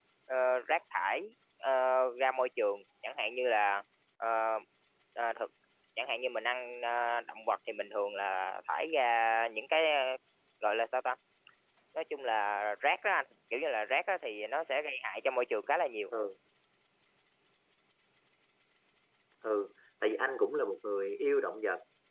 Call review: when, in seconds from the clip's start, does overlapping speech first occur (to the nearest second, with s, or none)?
none